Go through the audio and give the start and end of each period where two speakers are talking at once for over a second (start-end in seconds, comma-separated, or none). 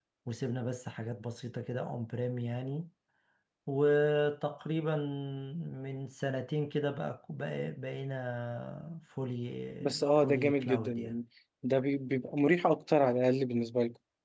9.8-11.1